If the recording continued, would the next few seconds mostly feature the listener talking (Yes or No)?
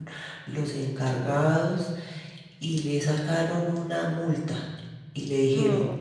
No